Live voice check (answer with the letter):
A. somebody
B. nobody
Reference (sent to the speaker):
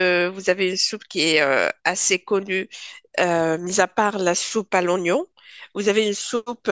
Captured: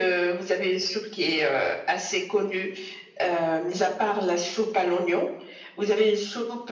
B